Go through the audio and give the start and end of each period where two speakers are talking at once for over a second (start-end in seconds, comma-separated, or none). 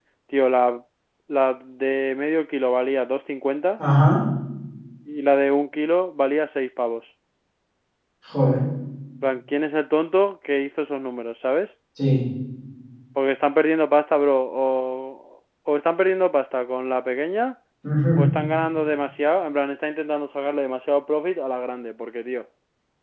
none